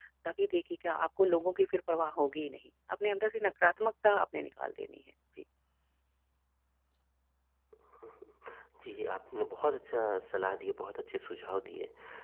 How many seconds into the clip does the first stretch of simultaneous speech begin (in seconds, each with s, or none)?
none